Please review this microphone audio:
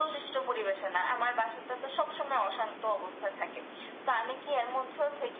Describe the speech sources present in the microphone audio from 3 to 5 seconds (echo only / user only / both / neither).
echo only